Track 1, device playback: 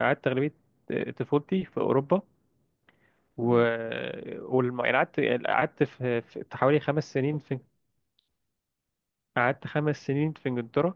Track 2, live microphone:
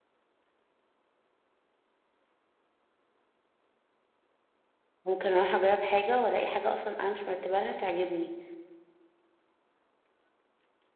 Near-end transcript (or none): ممكن اروح اجرب حاجة والاقي حاجة اصلا انا مش مرتبة لها تعجبني